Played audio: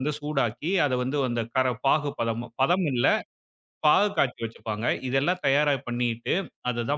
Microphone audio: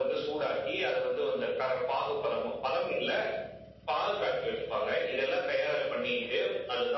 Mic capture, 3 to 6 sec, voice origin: echo only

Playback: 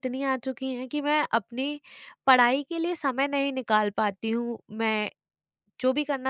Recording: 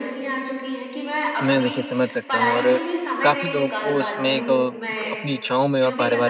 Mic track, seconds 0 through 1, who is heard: echo only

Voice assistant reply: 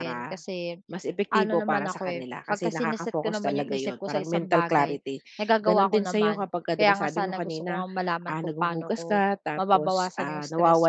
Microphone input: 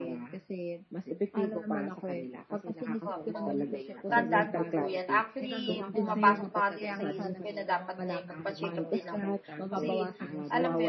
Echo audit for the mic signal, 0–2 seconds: echo only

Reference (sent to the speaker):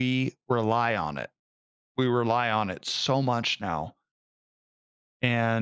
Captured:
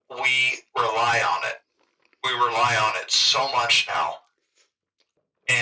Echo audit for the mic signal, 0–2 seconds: echo only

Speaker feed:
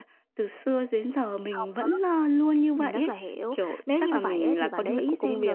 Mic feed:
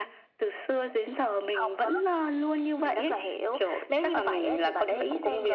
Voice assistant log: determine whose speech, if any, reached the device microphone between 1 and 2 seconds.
echo only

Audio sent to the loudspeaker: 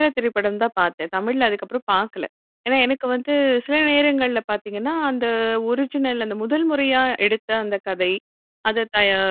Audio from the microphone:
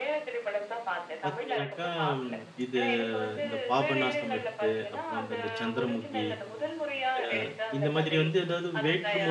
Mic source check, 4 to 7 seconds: both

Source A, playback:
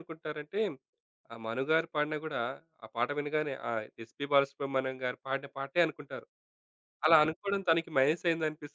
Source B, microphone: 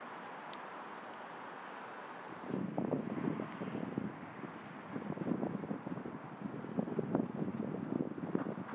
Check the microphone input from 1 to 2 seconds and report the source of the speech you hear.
neither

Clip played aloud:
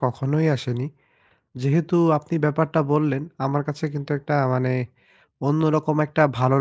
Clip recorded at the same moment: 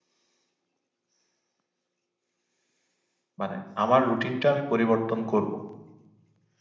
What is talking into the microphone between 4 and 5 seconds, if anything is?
user only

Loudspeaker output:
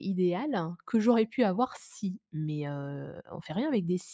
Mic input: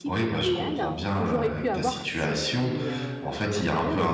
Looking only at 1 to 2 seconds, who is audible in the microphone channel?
both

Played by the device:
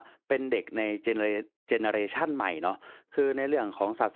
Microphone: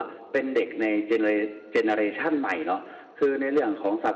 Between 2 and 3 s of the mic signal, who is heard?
echo only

